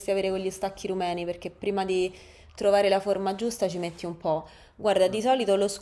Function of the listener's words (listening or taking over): listening